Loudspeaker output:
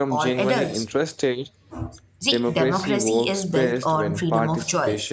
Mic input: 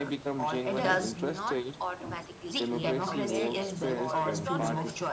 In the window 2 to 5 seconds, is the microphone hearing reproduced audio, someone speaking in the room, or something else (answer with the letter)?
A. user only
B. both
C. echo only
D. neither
B